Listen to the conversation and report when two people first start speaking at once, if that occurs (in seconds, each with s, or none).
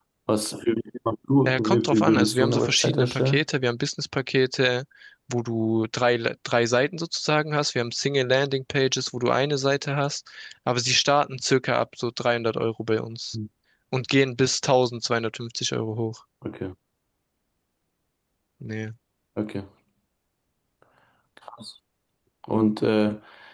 1.4 s